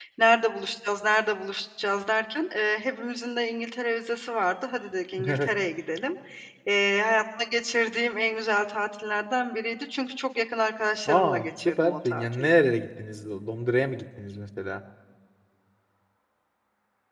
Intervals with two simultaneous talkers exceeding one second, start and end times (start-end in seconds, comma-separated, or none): 11.1-12.5